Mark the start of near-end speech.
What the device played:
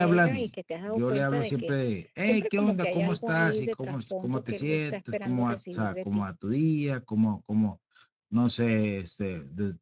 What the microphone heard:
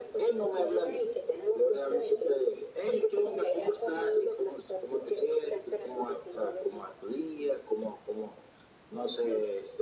none

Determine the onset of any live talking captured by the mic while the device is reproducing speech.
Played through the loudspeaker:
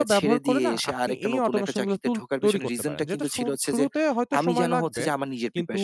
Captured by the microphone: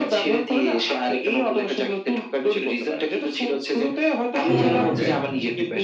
4.5 s

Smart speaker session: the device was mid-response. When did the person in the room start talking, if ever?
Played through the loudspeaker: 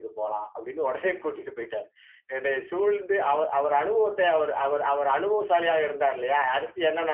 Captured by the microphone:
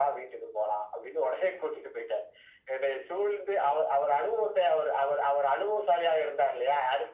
none

